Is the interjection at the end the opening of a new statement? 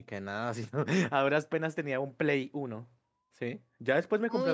Yes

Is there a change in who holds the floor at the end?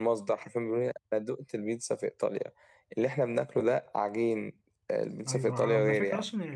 Yes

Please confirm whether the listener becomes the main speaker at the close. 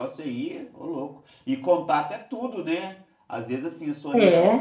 No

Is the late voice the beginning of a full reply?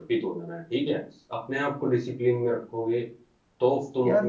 Yes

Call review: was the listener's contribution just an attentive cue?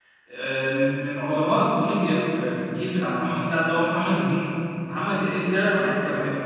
Yes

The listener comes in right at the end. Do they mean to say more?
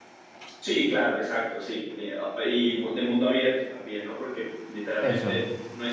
No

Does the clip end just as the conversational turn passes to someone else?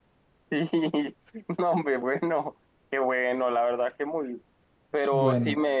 No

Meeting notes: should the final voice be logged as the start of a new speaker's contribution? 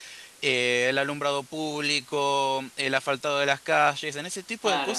No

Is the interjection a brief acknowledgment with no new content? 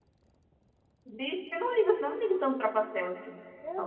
No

